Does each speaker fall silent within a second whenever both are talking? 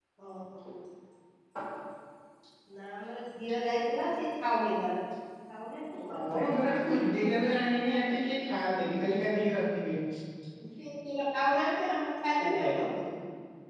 No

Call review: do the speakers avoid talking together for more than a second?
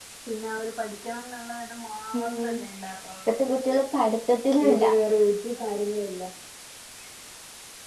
Yes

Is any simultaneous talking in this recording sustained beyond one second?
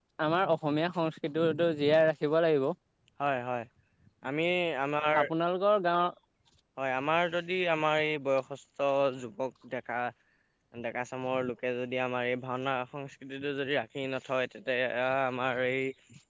No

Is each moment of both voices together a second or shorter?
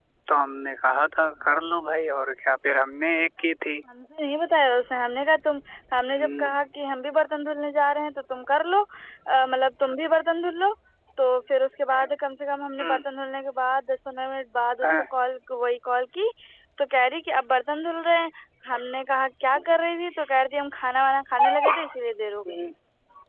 Yes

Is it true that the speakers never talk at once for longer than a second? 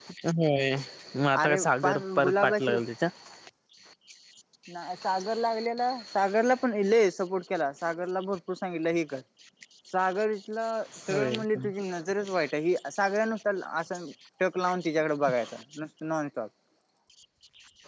No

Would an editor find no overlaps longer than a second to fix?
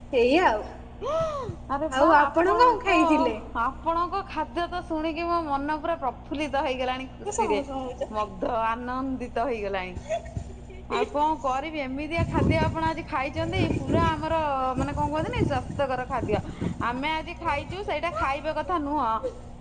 No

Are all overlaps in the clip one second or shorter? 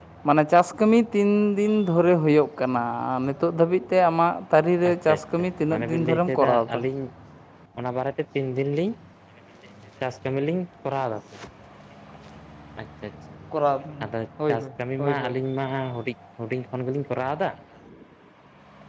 No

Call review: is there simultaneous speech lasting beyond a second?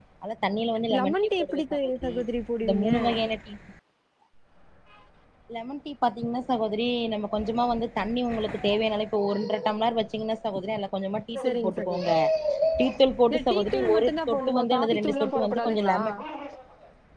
Yes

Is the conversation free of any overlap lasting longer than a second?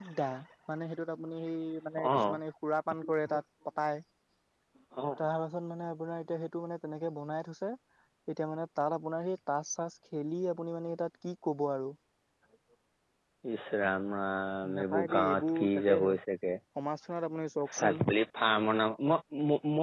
No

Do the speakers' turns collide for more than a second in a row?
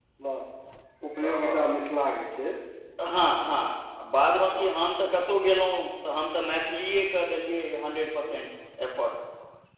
No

